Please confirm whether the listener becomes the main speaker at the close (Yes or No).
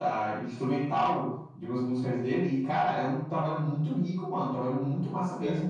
No